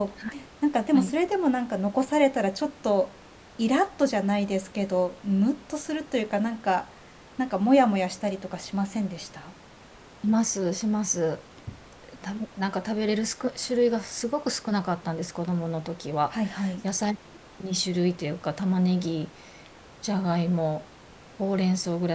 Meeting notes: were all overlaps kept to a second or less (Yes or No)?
Yes